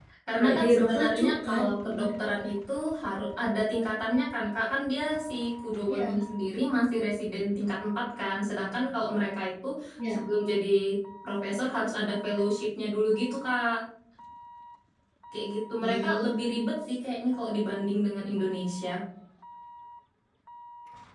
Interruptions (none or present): present